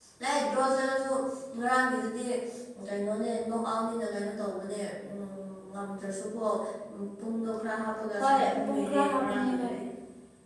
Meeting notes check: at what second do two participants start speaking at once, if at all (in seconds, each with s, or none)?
8.2 s